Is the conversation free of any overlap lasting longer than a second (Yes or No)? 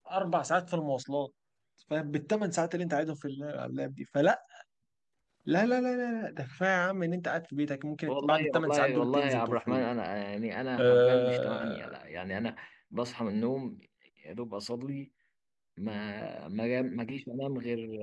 No